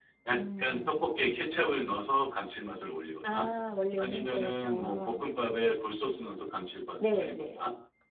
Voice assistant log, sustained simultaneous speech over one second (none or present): present